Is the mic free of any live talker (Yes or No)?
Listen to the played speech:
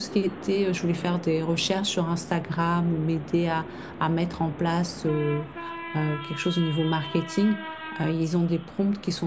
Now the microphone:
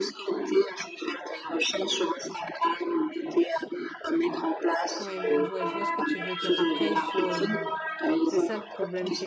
No